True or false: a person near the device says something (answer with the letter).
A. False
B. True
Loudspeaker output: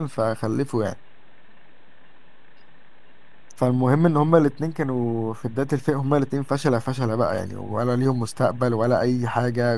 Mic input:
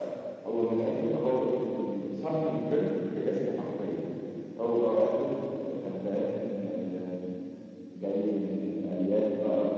B